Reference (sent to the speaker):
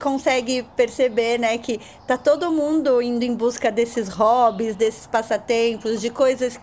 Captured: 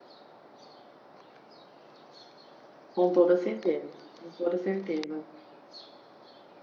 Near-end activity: present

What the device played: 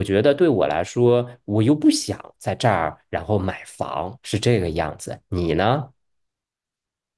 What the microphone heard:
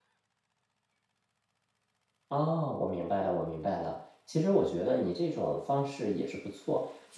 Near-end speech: present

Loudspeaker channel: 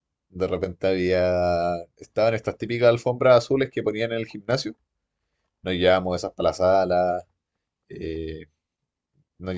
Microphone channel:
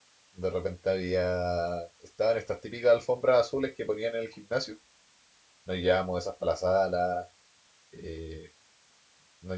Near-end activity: none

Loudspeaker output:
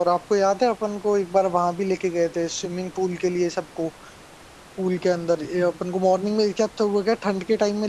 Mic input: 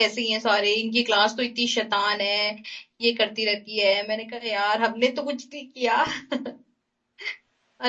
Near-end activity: present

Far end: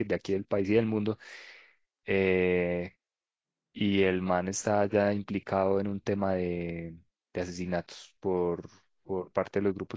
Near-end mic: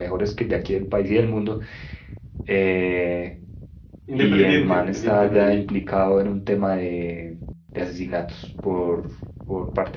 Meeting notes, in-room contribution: present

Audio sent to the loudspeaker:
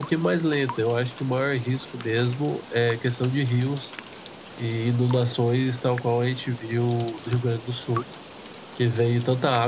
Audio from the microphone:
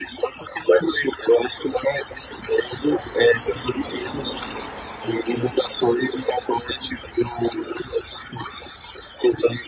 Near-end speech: none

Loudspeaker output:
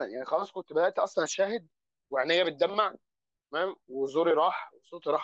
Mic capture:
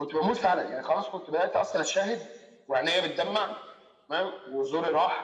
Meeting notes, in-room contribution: none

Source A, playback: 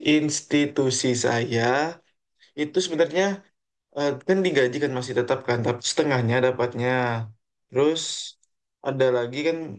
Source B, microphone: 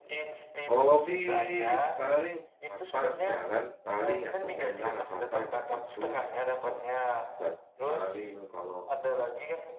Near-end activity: present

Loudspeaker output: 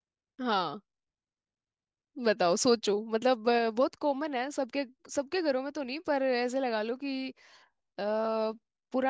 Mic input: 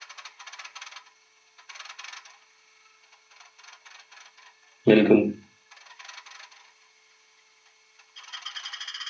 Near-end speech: present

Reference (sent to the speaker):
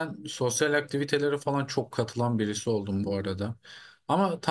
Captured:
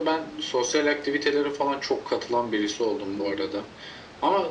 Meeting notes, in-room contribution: none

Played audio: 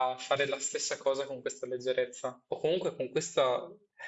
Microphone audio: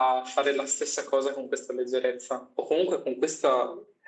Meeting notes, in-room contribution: none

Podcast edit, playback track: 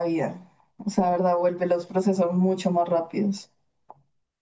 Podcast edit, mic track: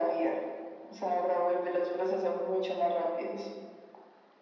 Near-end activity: none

